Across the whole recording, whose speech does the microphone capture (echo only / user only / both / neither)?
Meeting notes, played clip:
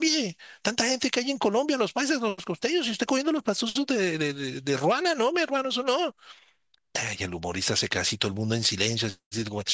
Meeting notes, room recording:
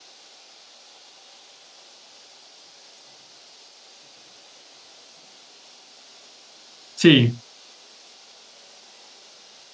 user only